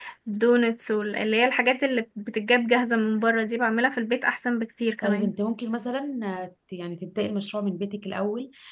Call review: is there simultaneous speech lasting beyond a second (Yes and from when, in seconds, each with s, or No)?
No